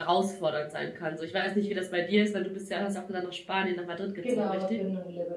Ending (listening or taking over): taking over